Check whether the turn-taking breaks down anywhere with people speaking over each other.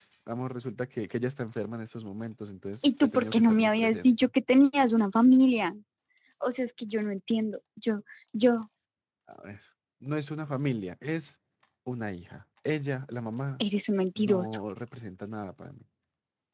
Yes, from 2.8 s

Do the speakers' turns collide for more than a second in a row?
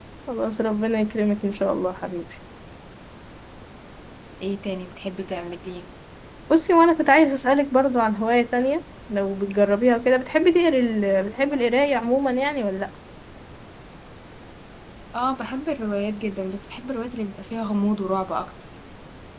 No

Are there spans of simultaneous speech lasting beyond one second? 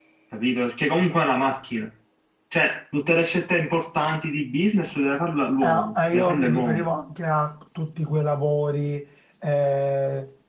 Yes, from 5.6 s

